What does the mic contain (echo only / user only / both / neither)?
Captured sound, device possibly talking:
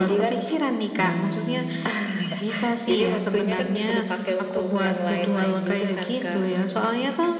both